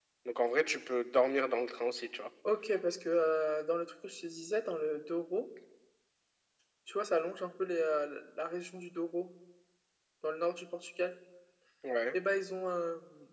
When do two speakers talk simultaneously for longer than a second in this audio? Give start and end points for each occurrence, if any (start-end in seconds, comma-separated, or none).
none